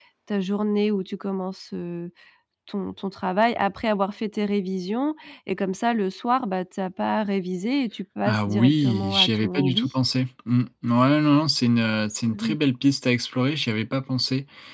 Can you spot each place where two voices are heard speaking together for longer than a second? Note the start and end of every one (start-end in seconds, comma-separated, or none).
8.2-9.9